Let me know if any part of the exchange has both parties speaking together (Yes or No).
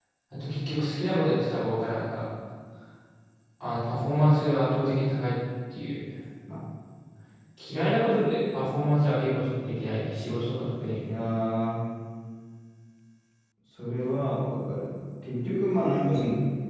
No